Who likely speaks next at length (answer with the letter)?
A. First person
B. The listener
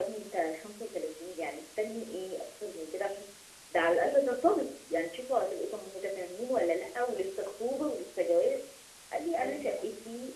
A